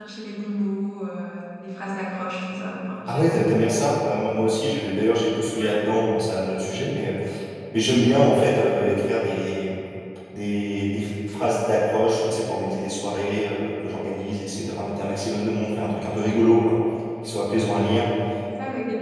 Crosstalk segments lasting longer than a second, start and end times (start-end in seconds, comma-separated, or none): none